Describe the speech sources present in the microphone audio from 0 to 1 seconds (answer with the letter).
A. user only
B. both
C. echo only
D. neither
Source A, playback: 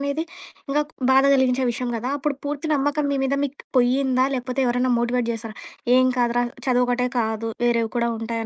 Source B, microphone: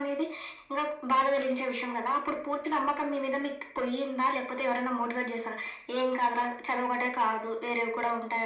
C